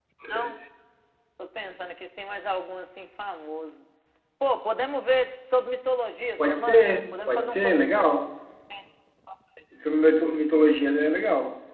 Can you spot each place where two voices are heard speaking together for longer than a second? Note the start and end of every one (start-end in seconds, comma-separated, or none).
6.5-8.1